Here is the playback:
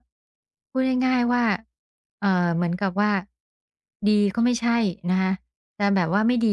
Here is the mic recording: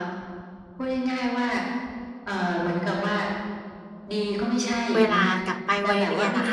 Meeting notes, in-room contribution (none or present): present